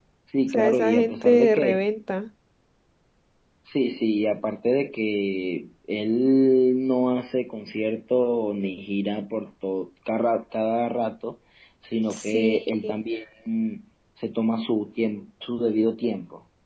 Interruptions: present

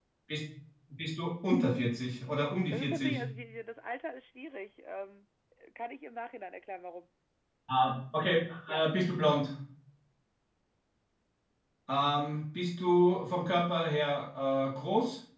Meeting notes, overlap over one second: none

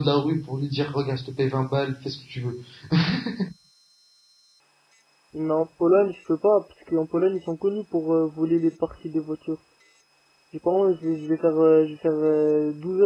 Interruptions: none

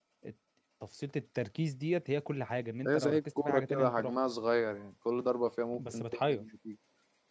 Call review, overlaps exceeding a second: present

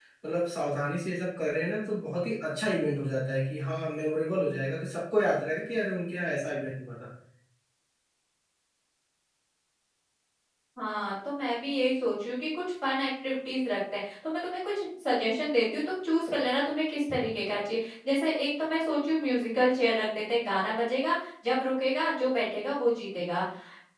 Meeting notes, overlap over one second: none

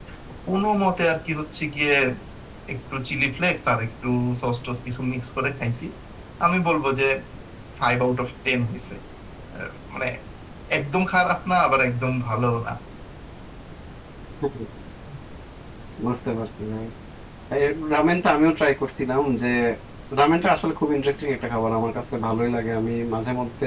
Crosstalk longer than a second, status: none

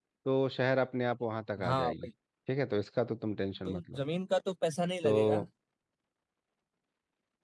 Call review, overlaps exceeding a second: none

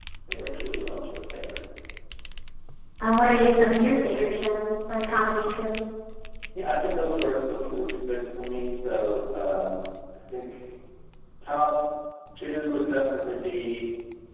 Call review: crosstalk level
none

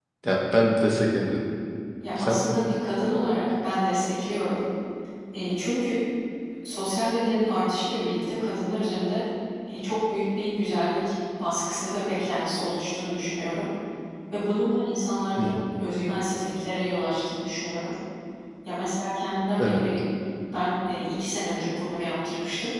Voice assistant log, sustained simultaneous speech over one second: none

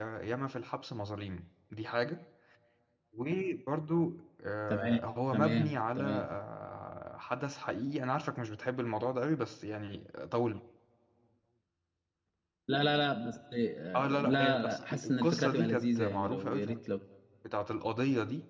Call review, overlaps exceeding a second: present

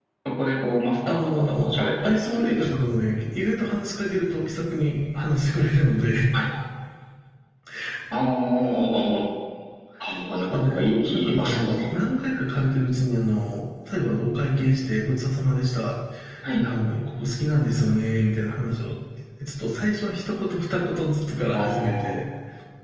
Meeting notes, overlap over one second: present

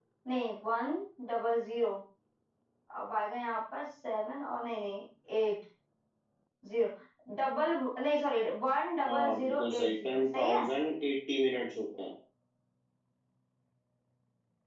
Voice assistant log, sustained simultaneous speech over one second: present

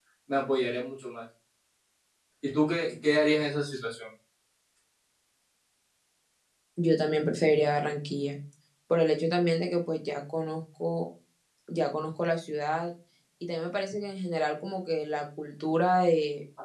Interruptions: none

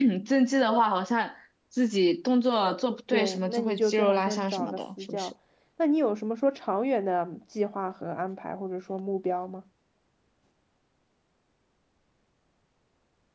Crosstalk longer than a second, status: present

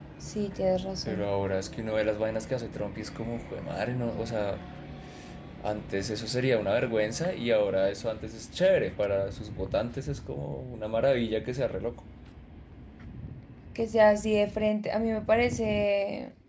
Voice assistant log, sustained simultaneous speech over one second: none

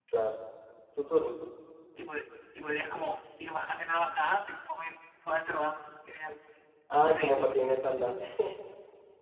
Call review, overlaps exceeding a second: none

